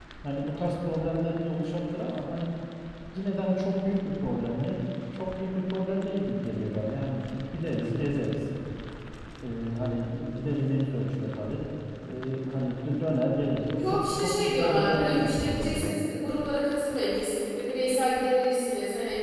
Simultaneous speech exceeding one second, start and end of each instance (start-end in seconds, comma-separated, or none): 13.8-16.0